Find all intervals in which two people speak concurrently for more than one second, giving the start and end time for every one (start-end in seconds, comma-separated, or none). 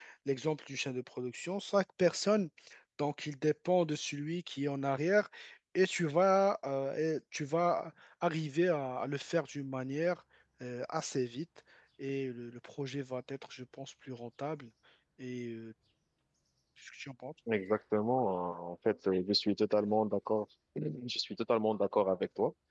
none